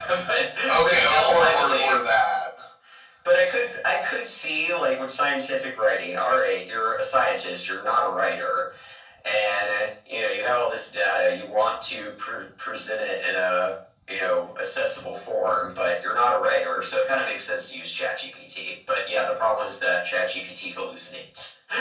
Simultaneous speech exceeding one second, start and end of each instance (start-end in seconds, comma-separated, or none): 0.7-2.0